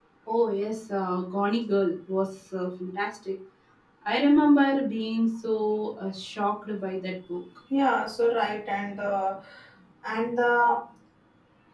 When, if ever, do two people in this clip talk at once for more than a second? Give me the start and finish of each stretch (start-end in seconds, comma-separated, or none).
none